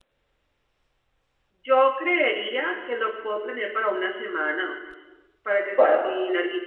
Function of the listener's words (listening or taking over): listening